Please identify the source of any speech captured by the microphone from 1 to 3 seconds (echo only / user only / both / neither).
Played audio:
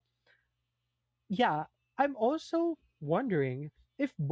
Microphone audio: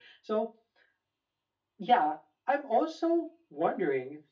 echo only